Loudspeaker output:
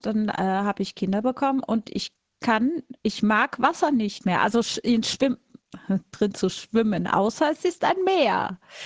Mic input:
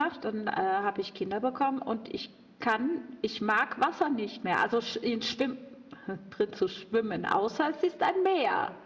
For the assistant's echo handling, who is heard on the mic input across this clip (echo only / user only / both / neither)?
echo only